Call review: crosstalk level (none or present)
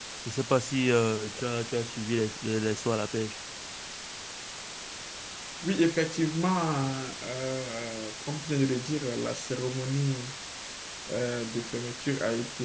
none